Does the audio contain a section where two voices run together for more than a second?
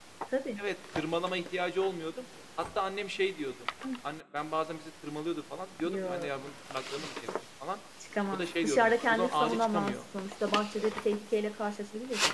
Yes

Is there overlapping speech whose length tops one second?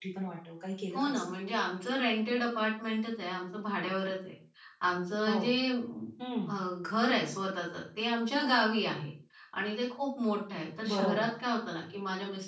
No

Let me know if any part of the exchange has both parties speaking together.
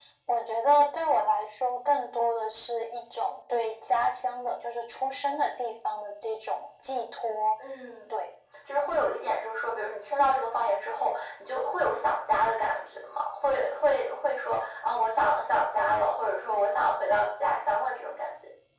No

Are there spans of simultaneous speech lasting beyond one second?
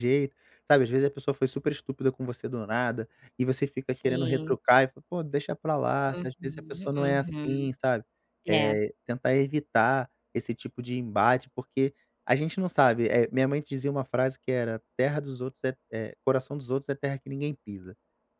Yes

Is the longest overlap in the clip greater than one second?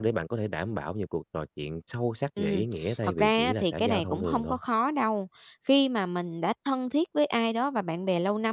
Yes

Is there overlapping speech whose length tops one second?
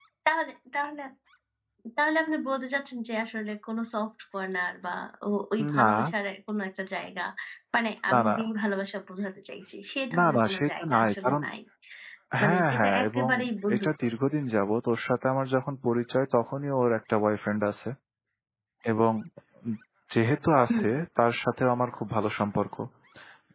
Yes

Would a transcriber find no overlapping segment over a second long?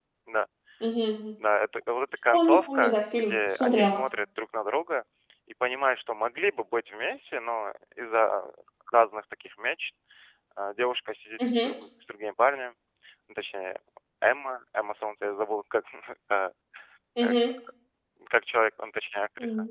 No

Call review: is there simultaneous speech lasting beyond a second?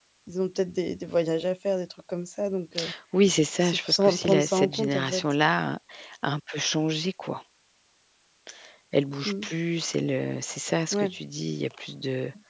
Yes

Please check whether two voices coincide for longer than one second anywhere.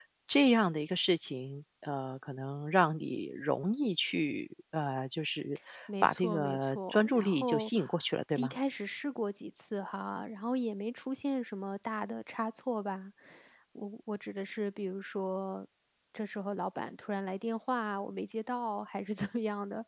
Yes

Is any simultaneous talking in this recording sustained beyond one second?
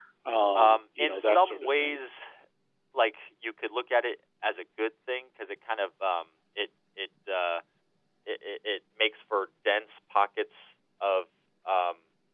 Yes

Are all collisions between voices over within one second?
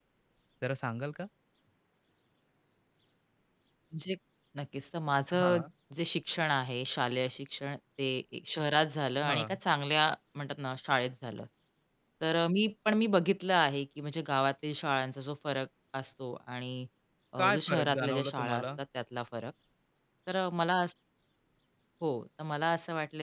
No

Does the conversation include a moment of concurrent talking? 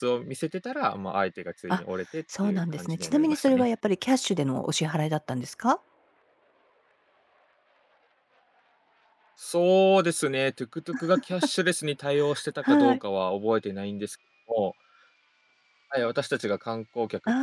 Yes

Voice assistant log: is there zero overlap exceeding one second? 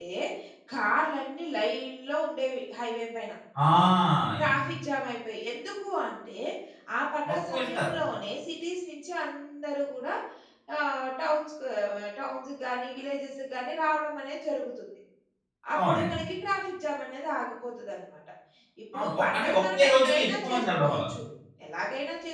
No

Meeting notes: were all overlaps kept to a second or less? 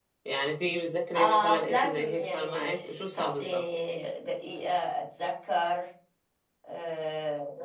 No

